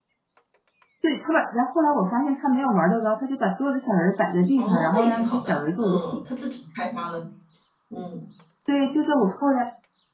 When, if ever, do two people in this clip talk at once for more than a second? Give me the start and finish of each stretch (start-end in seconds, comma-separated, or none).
4.6-6.2